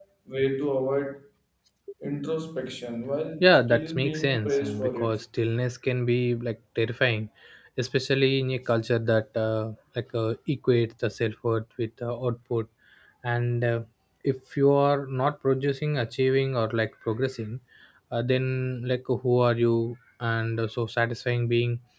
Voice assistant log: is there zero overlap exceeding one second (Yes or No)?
No